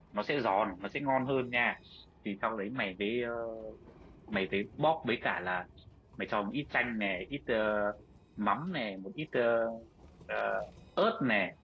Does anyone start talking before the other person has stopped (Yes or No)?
No